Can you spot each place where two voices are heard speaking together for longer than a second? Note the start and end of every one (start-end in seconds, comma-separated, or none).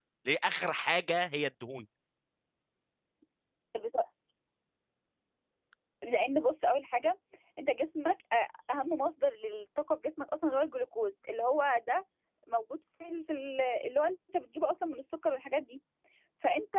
none